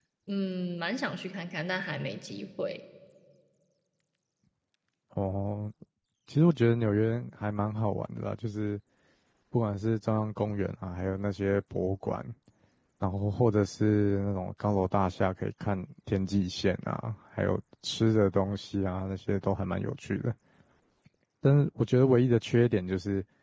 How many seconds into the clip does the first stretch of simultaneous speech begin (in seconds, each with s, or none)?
none